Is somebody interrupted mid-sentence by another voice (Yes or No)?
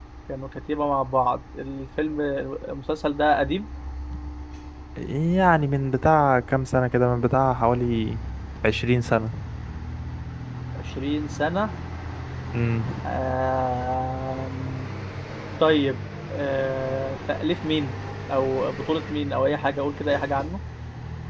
No